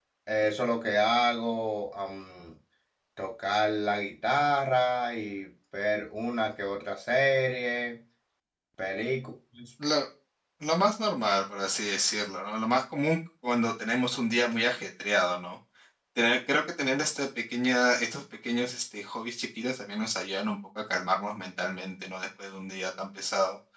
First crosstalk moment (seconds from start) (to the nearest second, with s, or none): none